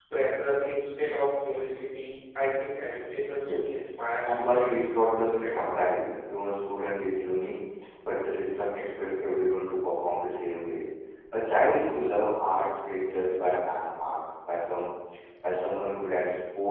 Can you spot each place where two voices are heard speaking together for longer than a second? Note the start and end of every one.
4.3-5.9

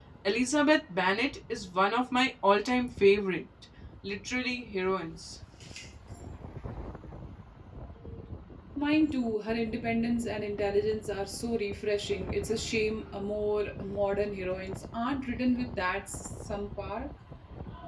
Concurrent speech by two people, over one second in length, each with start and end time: none

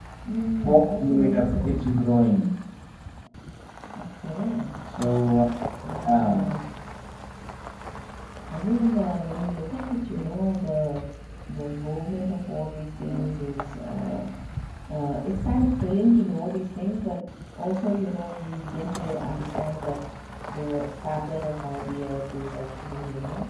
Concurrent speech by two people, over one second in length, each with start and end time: 0.6-1.8

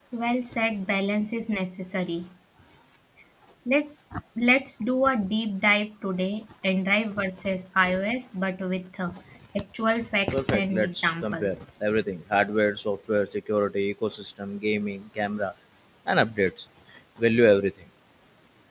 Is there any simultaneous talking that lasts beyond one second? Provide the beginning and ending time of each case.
10.3-11.5

